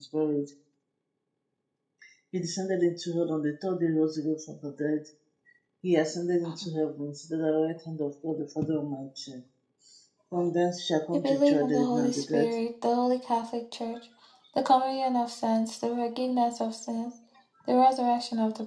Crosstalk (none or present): present